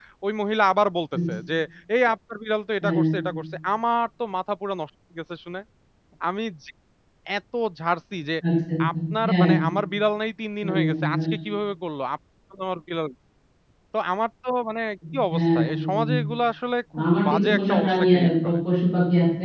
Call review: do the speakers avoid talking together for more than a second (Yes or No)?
No